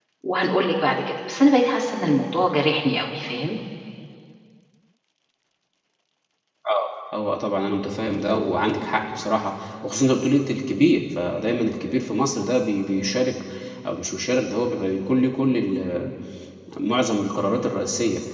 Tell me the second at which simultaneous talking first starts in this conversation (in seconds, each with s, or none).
none